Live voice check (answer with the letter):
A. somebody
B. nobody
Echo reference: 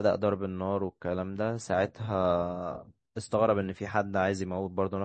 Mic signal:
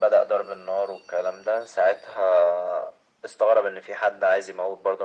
B